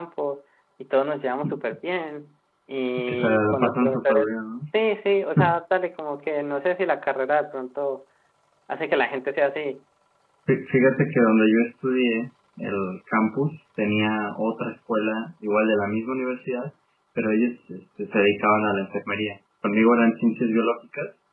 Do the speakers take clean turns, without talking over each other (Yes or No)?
No